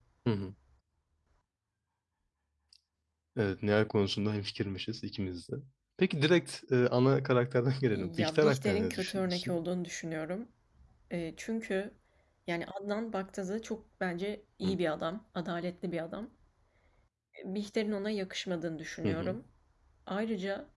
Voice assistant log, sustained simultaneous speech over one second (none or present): present